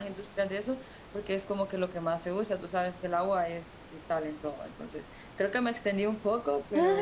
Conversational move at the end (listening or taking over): taking over